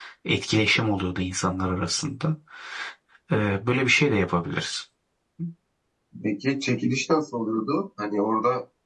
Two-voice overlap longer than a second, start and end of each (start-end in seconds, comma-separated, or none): none